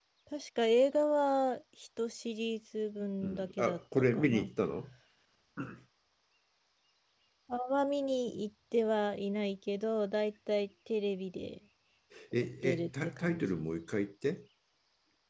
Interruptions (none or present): present